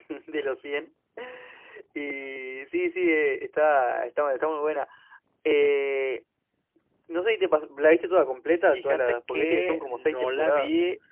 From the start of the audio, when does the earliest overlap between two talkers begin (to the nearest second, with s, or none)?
9 s